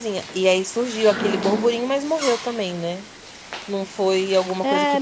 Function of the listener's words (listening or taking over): taking over